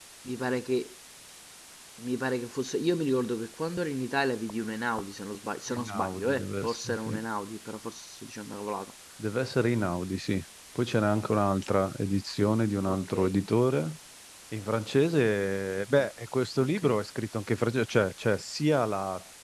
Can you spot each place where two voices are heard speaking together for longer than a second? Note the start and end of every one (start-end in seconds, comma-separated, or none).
5.7-7.2